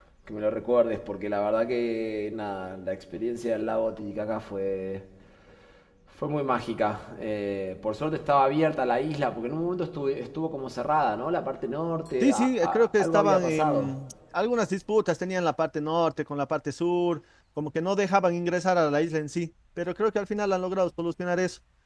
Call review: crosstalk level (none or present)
present